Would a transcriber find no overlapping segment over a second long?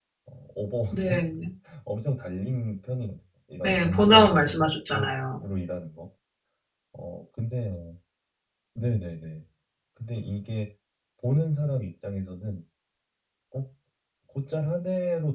No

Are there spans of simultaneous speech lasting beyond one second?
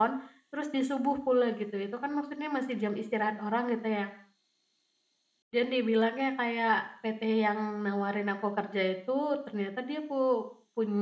No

